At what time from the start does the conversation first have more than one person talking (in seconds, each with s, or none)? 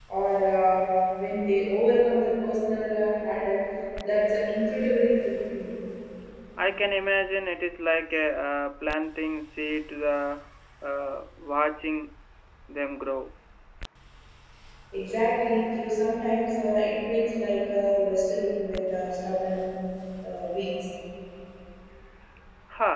none